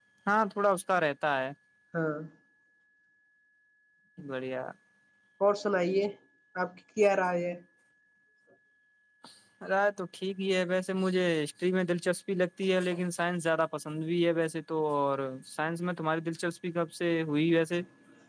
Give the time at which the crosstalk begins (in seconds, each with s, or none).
none